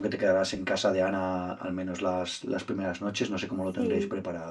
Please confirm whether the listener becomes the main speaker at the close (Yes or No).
Yes